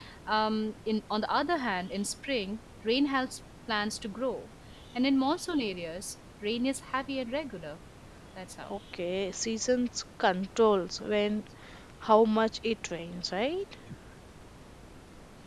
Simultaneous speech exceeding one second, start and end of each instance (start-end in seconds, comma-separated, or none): none